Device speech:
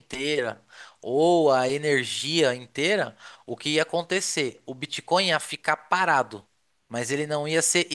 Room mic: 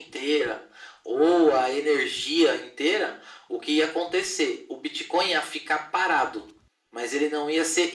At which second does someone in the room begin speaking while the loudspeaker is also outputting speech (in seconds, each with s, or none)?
none